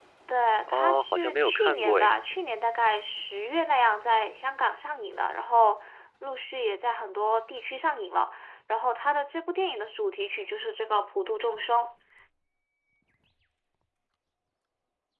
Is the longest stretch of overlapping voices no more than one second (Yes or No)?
No